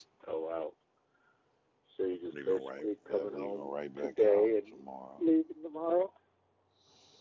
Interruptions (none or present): present